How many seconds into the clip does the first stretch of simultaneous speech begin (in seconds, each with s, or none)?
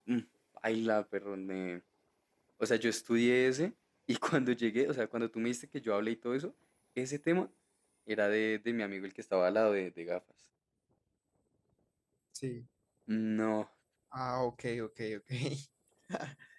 none